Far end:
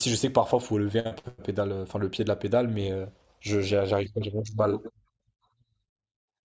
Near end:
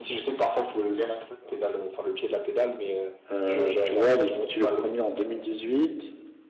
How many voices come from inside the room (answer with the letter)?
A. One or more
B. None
A